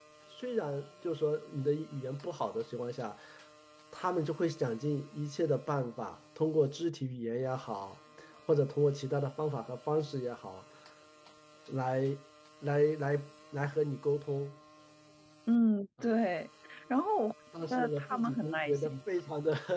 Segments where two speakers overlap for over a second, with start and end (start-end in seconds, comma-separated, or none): 17.7-18.9